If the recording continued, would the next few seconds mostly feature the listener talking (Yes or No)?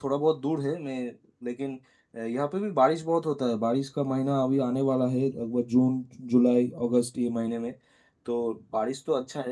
No